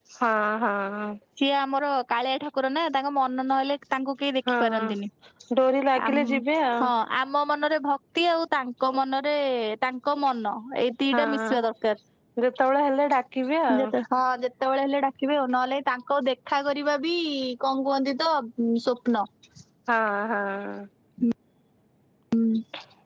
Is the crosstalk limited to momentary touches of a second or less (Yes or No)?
Yes